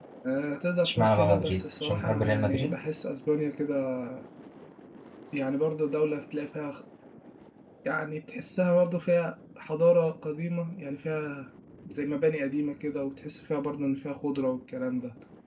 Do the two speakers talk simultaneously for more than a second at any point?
Yes, from 0.8 s

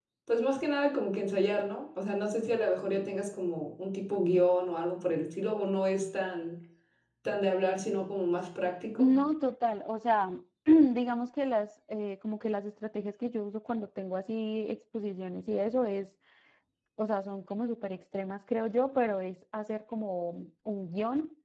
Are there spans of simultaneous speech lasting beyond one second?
No

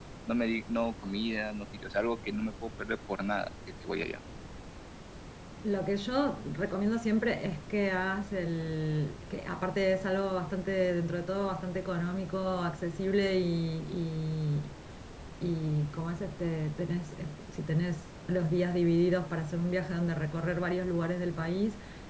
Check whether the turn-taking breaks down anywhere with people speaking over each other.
No

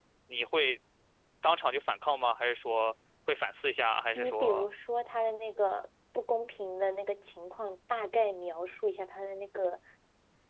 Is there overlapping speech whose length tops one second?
No

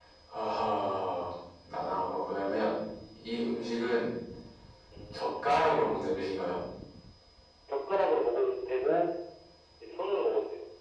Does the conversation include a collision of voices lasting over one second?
No

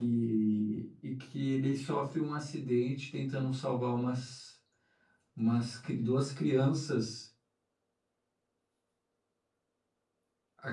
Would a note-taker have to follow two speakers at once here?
No

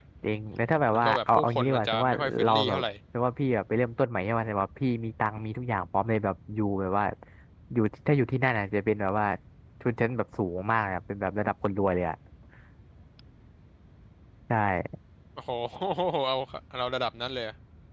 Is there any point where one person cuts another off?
Yes, from 0.9 s

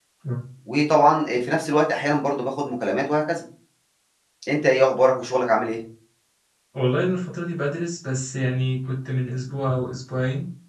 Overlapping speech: No

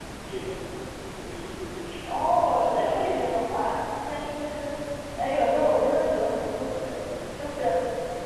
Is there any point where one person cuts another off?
Yes, from 2.0 s

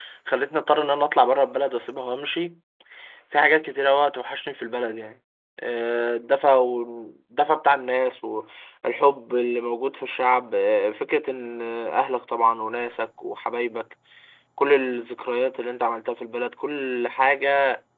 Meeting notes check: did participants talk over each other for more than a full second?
No

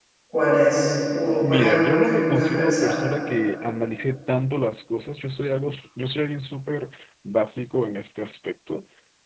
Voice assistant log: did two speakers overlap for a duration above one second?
Yes, from 1.4 s

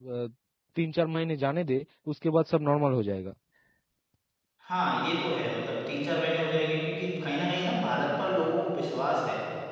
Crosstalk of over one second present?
No

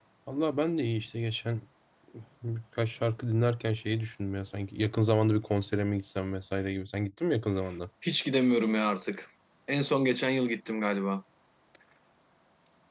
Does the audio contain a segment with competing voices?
No

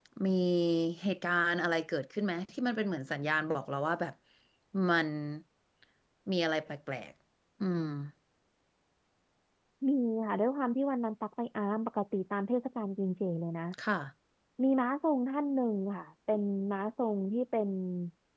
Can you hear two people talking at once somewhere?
No

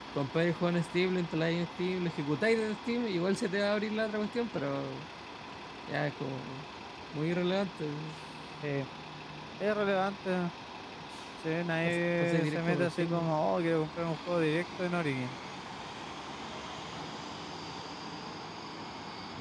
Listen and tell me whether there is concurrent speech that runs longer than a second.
Yes, from 11.8 s

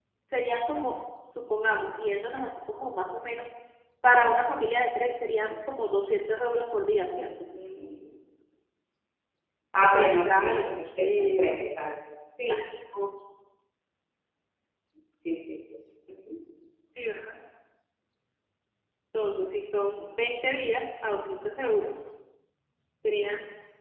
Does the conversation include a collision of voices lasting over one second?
Yes, from 9.8 s

